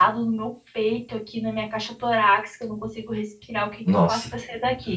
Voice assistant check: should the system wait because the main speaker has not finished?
Yes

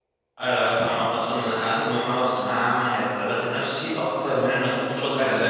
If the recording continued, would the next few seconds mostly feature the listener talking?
Yes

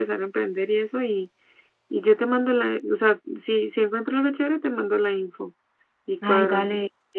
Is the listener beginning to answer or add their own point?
Yes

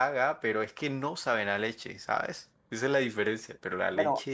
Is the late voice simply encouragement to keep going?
No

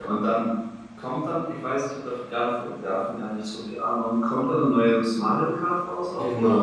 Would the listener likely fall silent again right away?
No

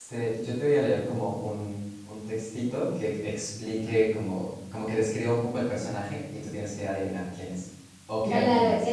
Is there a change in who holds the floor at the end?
Yes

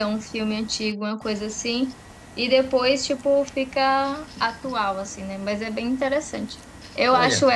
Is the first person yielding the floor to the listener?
No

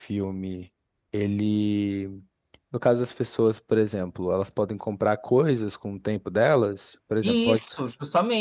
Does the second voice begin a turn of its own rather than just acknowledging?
Yes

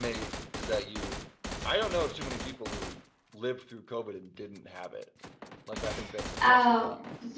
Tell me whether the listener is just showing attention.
No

